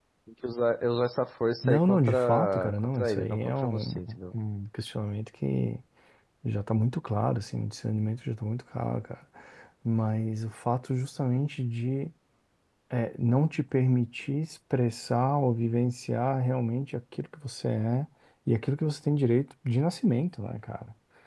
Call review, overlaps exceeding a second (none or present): present